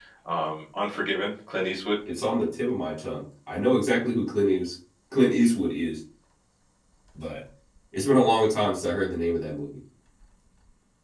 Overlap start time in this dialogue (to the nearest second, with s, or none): none